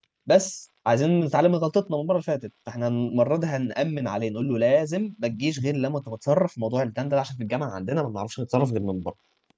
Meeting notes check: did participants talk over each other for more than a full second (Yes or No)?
No